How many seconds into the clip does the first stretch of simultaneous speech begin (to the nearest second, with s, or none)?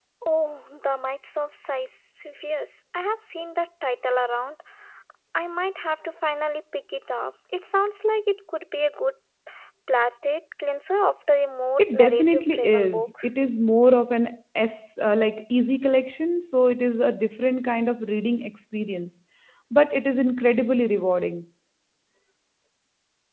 12 s